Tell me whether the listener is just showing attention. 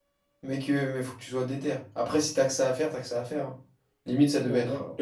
No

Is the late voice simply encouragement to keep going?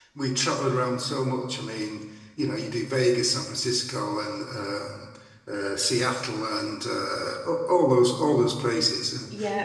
Yes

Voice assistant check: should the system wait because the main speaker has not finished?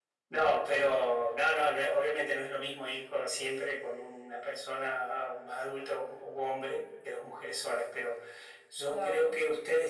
Yes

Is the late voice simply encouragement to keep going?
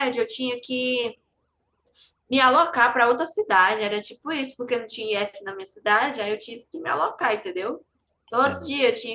Yes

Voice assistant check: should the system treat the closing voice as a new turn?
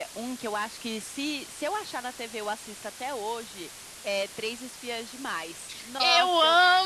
Yes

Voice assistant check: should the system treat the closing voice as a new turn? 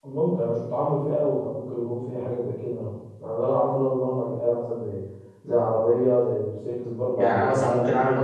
Yes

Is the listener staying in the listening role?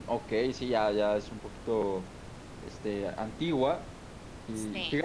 Yes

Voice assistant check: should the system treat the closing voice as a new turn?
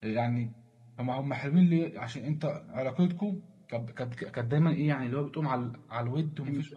No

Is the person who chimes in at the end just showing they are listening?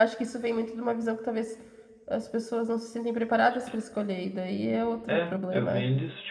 No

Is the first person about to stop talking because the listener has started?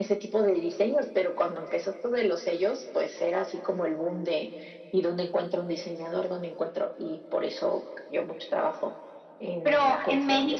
Yes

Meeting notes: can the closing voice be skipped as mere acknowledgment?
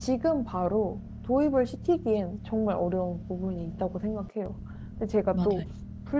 Yes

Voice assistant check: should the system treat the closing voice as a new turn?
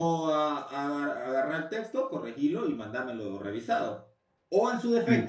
No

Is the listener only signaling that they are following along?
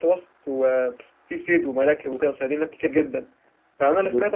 Yes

